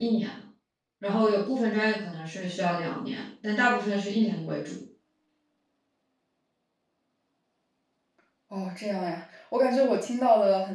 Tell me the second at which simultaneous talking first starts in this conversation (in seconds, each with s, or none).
none